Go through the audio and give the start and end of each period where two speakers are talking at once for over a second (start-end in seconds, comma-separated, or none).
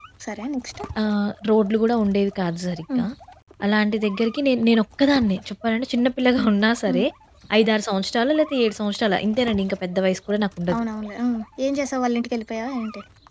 none